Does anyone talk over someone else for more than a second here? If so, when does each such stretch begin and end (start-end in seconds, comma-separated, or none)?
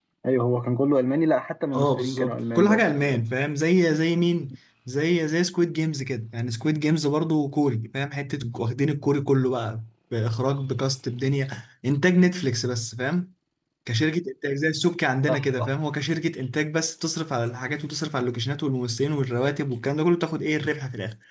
1.7-3.2